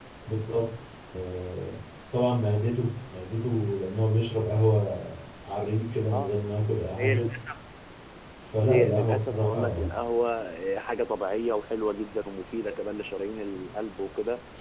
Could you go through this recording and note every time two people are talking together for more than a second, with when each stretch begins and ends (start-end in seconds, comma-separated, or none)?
8.7-9.9